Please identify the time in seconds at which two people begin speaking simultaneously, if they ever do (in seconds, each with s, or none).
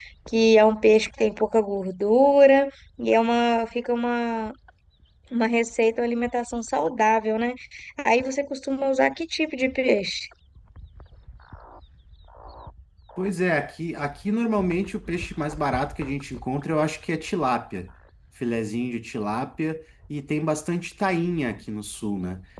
none